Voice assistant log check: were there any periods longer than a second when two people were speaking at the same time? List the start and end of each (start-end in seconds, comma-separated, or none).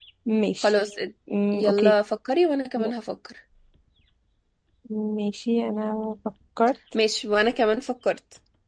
none